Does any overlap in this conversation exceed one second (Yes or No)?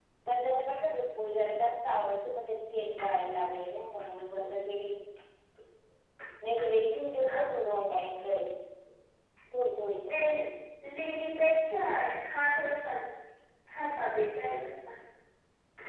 No